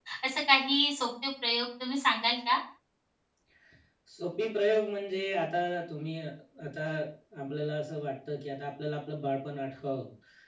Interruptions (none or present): none